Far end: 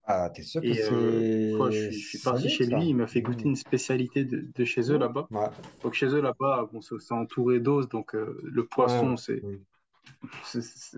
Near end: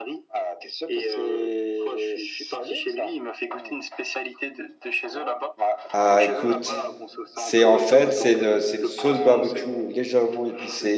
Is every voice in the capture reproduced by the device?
No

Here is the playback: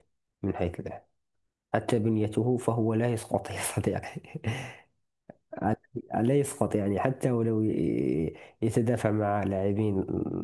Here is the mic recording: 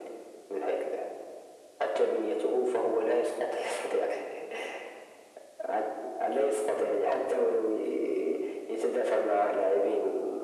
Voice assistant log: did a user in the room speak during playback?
No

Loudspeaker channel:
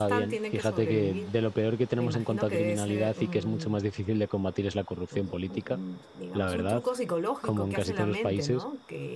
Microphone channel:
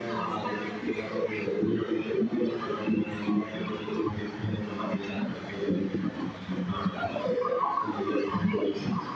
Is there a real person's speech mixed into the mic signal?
No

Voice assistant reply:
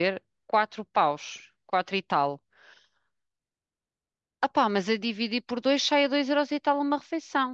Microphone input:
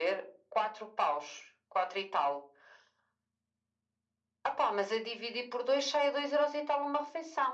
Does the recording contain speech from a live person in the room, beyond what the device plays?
No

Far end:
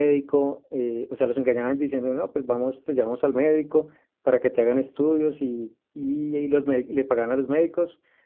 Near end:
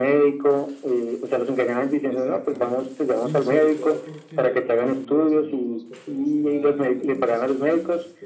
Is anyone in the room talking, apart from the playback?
Yes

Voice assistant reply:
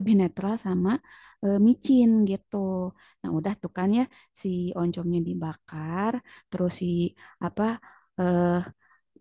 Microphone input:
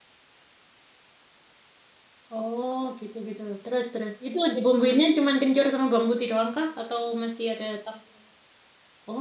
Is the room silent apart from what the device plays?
No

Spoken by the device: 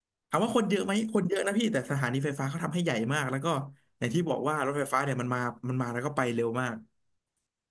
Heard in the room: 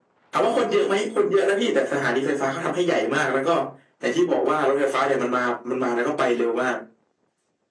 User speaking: No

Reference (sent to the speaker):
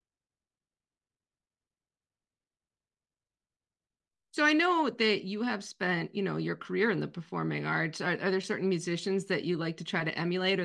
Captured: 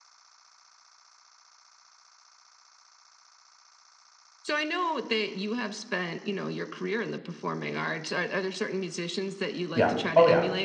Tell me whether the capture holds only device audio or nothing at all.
No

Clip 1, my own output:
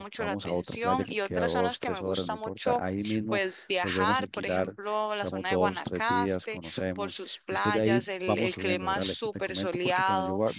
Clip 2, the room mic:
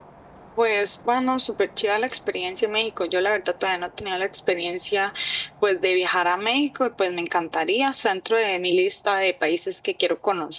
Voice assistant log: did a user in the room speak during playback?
Yes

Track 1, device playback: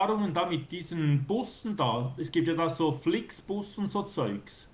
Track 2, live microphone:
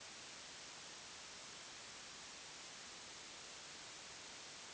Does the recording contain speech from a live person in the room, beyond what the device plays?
No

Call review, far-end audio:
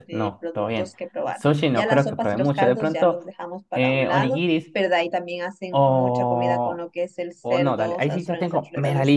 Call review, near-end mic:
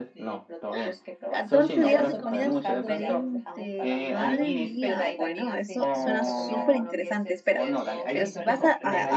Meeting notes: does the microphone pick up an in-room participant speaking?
Yes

